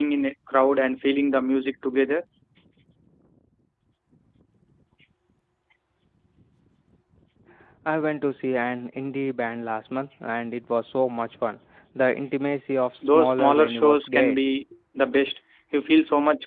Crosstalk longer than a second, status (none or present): present